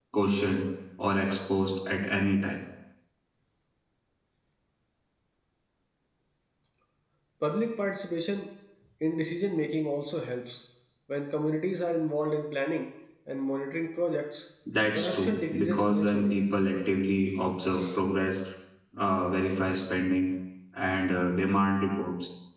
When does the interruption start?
14.9 s

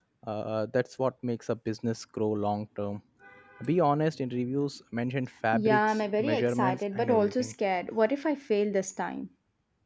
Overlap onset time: 5.5 s

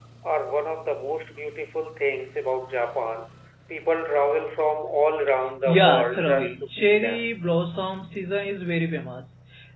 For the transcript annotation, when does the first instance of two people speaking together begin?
5.6 s

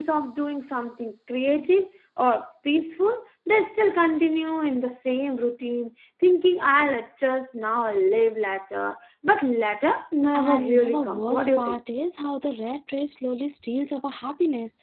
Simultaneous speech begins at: 10.3 s

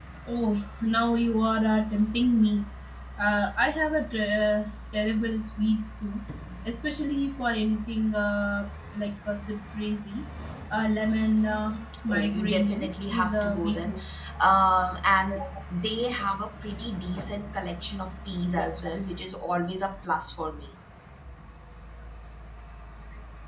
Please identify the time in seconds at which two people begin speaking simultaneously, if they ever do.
12.1 s

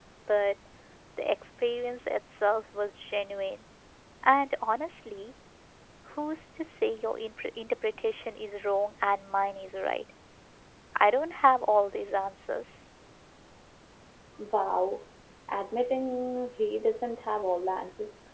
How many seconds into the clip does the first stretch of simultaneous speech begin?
none

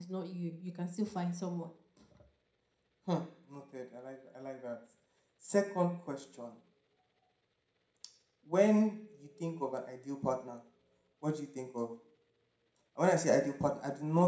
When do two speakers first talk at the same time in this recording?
none

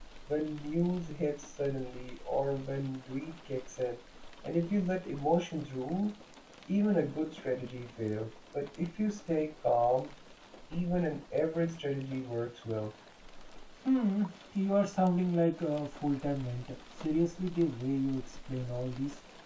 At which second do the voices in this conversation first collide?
none

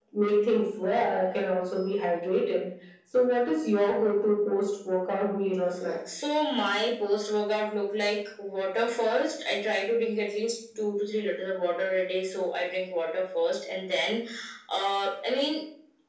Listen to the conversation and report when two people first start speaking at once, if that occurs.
none

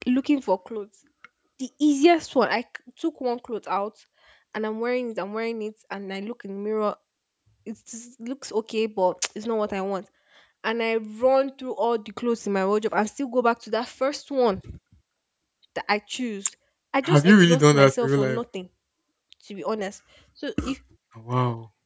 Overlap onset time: 17.0 s

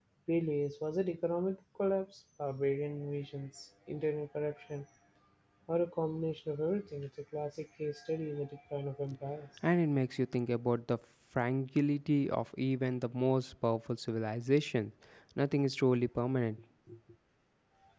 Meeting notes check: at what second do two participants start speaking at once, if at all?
none

